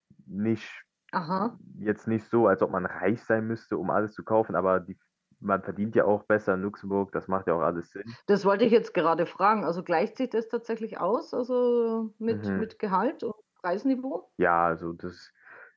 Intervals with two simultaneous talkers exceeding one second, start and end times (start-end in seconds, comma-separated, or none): none